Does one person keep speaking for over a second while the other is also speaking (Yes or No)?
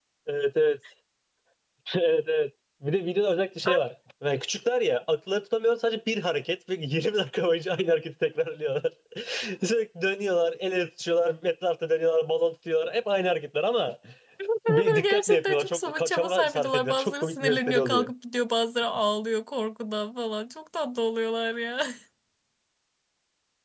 Yes